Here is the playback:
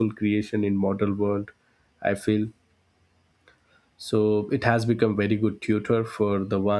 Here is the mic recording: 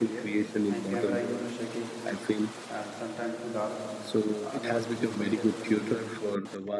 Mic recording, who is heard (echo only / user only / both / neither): both